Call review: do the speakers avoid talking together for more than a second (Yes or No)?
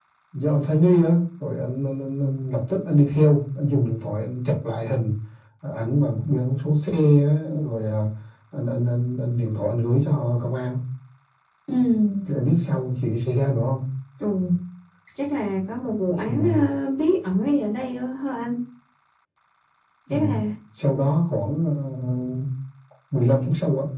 Yes